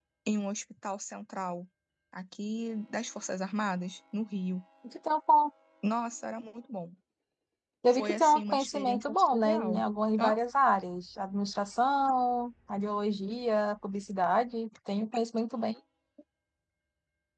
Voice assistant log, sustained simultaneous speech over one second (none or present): present